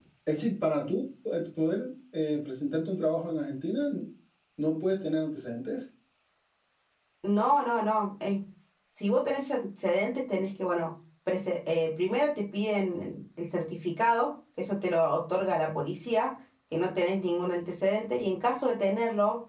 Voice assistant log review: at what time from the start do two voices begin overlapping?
none

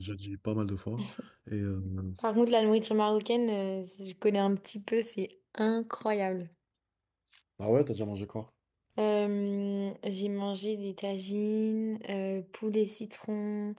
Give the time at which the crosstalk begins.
none

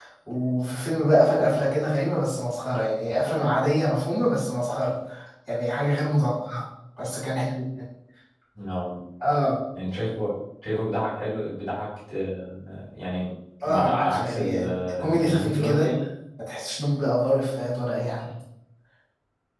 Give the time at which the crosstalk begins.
14 s

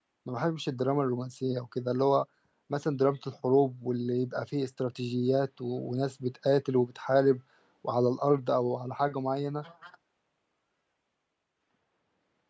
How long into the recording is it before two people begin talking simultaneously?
none

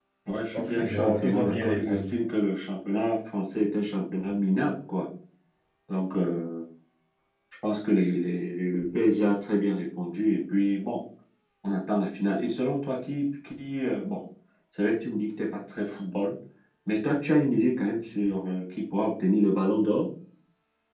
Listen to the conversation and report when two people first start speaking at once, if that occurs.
1 s

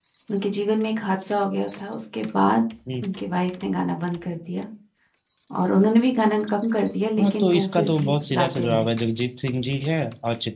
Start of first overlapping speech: 7 s

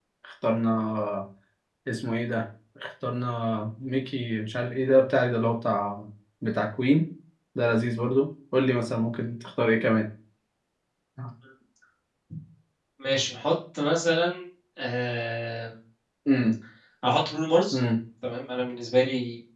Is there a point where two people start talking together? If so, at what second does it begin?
none

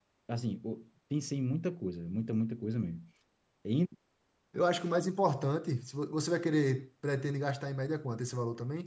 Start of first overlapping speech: none

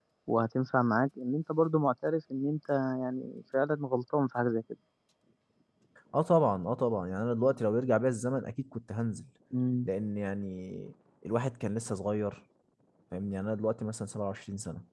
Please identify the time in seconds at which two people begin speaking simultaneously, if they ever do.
none

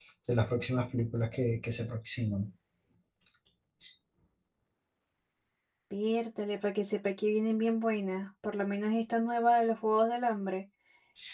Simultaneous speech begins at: none

